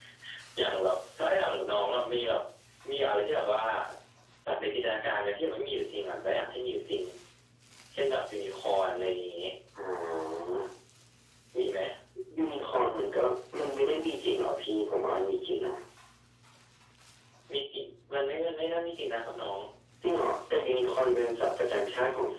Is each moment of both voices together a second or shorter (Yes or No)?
Yes